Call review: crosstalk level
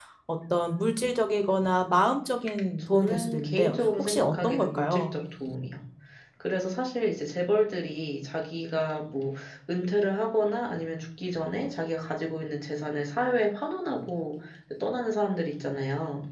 present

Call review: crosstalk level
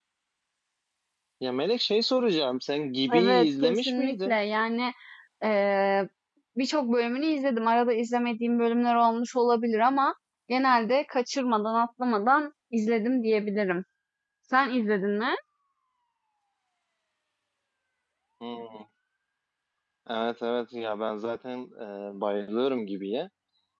present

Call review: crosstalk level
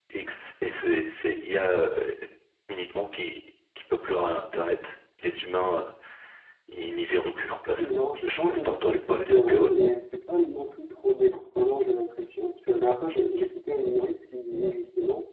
present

